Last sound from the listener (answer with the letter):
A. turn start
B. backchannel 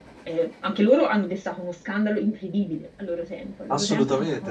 A